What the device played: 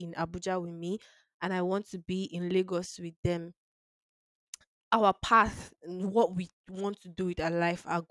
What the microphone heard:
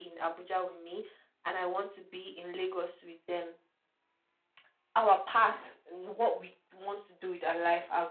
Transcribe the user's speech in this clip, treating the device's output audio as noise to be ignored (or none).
none